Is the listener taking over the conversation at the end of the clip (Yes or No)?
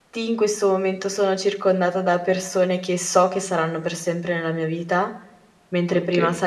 No